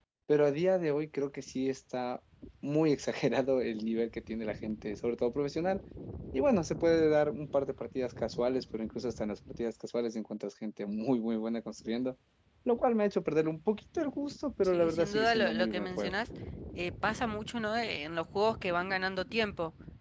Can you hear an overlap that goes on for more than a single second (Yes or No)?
Yes